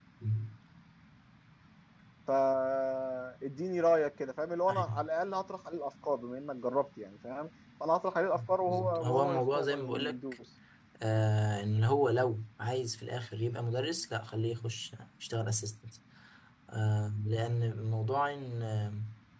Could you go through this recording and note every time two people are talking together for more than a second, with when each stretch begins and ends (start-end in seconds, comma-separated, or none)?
8.3-10.2